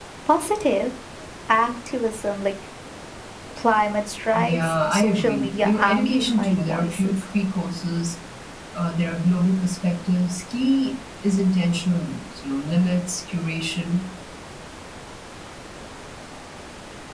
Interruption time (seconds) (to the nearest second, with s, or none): 4 s